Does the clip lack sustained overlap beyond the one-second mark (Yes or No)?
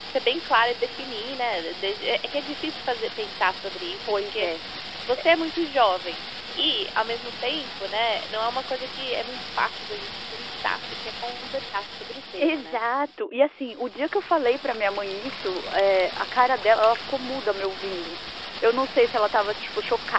Yes